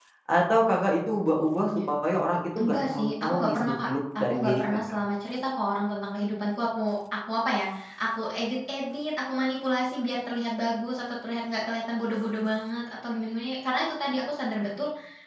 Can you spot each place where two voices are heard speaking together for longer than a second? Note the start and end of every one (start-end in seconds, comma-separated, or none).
2.6-4.8